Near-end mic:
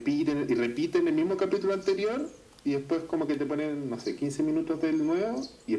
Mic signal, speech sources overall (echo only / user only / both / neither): echo only